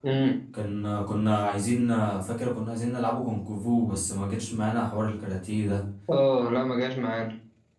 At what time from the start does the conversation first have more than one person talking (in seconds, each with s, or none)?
none